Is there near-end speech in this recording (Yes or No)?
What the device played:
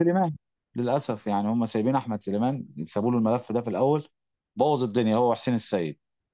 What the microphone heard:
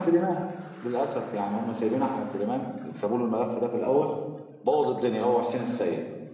No